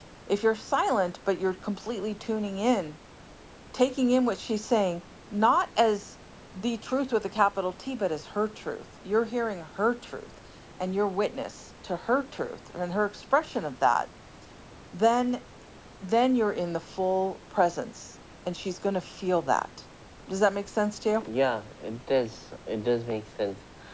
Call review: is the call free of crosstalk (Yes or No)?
Yes